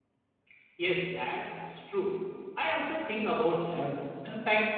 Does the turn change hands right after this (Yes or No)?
No